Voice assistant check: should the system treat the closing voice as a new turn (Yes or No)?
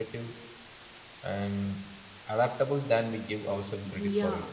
Yes